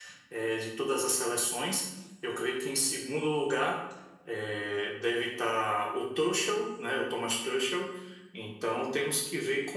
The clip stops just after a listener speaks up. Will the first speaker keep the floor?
Yes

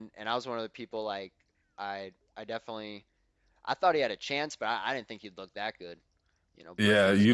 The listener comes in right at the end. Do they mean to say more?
Yes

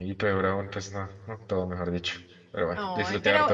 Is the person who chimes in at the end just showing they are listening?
No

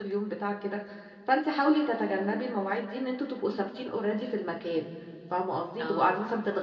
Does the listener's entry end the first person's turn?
No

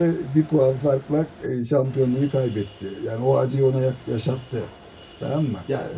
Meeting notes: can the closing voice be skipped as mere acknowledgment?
No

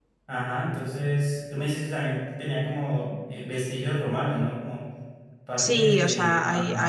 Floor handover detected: Yes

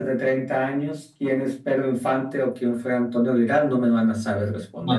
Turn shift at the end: Yes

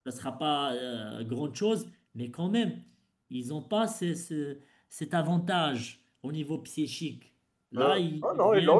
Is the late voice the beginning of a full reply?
Yes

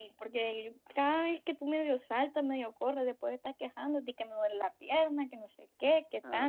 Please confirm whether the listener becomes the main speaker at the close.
Yes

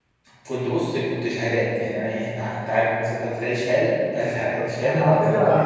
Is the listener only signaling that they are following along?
No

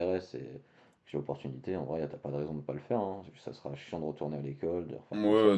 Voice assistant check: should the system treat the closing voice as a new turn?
Yes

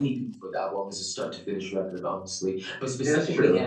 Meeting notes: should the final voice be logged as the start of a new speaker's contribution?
No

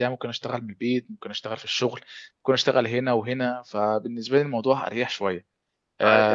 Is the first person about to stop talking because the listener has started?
Yes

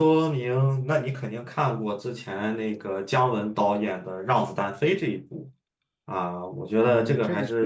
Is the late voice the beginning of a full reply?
Yes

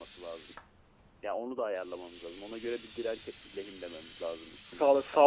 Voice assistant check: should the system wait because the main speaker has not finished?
No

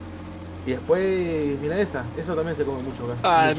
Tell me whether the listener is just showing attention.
No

